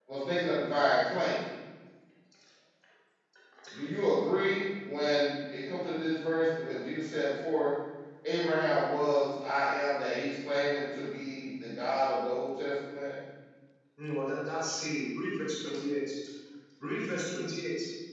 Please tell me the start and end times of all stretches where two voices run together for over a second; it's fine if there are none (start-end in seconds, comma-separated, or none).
none